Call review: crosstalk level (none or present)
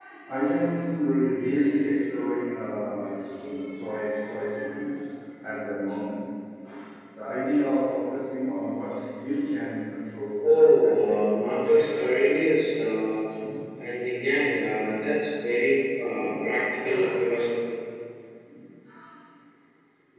present